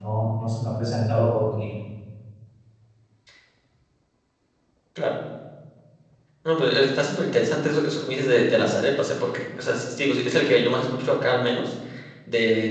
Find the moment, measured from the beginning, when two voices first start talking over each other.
none

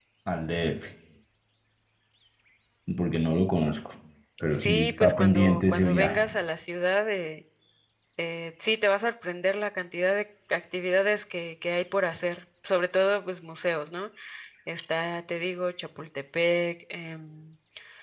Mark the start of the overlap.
4.5 s

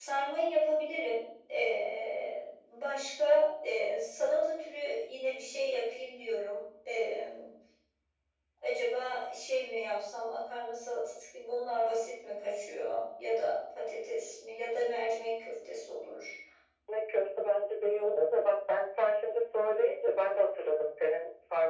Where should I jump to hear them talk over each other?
none

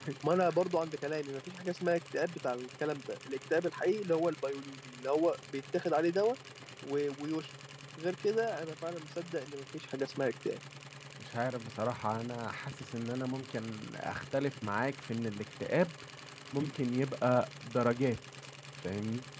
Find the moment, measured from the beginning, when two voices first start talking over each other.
none

